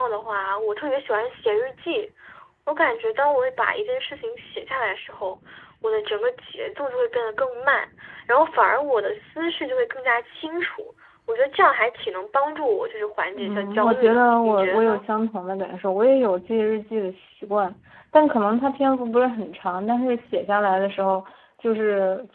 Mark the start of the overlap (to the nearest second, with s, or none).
13 s